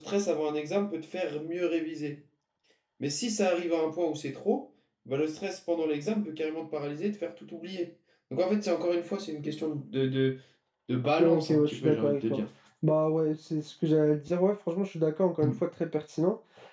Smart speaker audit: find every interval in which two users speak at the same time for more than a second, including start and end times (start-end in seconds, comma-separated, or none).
11.2-12.4